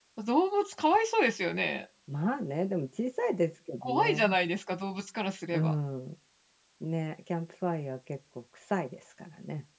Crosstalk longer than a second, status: none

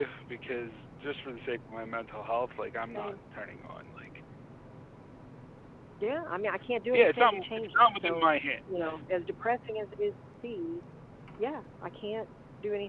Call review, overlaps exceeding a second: present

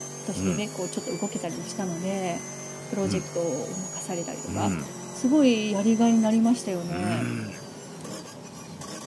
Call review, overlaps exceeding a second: none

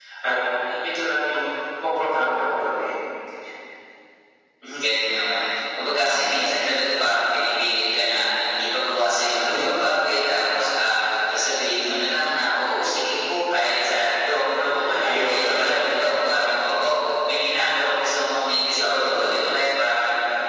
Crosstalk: present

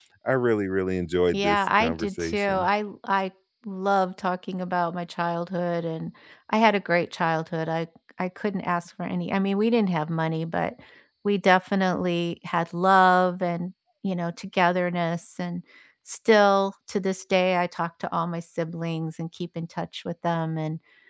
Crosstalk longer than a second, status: present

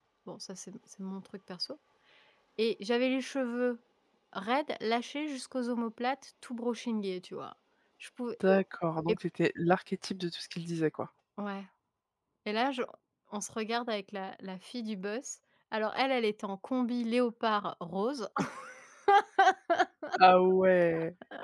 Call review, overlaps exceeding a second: none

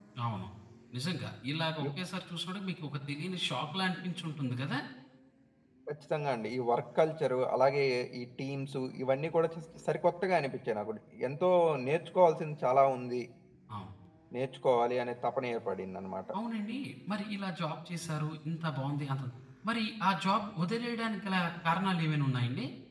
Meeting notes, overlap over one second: none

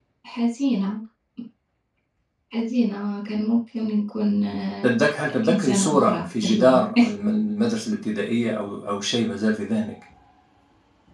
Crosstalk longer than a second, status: present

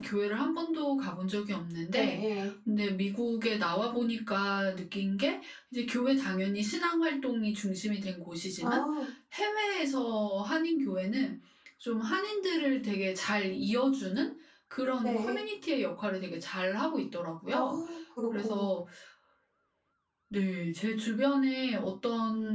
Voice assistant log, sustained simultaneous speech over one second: none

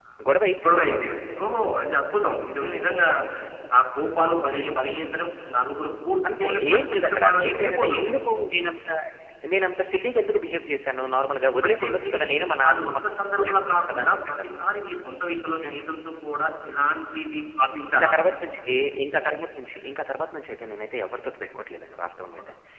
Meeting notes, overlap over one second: present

